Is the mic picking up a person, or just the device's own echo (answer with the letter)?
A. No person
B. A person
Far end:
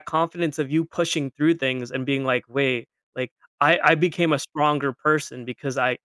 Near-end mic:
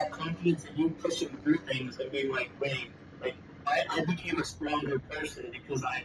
A